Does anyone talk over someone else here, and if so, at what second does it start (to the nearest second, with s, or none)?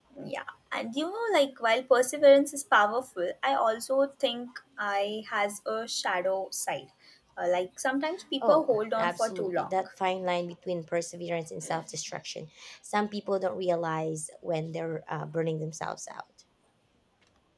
8 s